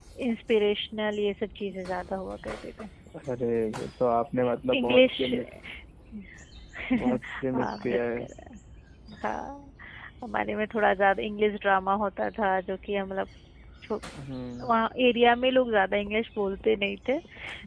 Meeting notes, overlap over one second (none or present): present